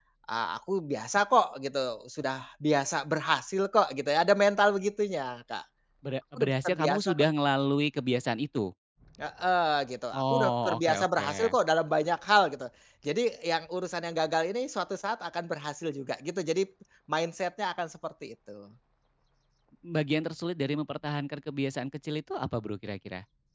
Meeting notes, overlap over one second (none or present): present